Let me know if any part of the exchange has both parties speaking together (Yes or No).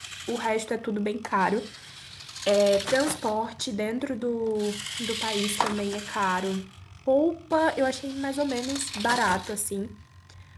No